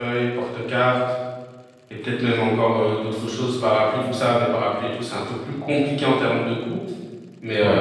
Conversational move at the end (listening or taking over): listening